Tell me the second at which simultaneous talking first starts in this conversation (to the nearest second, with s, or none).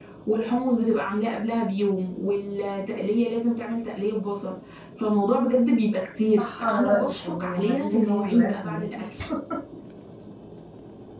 6 s